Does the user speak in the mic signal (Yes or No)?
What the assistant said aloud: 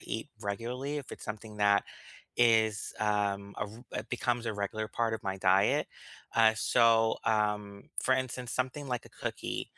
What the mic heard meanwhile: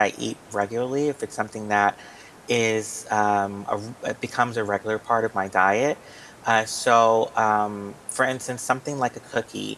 No